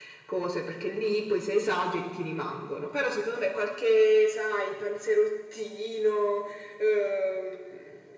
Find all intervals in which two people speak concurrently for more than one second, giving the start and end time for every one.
none

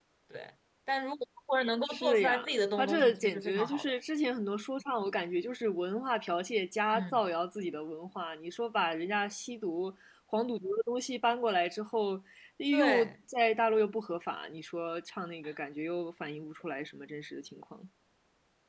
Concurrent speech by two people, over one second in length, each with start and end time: 1.9-3.9

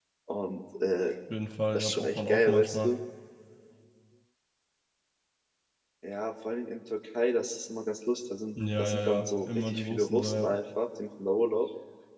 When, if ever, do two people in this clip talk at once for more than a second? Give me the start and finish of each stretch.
1.7-2.9, 8.8-10.5

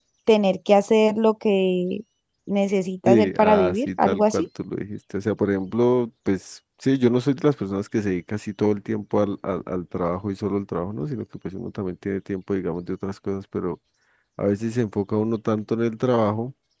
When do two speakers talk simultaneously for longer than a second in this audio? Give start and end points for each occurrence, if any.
3.0-4.5

